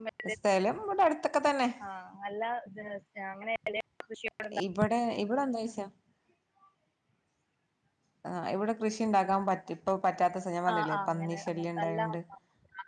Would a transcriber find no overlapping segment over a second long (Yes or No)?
No